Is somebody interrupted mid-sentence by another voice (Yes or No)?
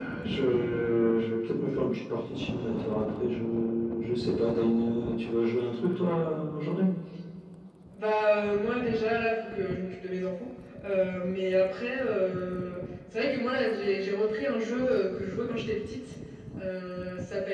No